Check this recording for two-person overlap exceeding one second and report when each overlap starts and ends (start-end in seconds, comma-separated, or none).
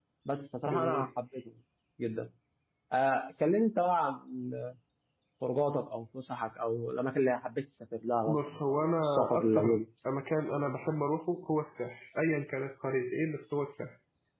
8.3-9.8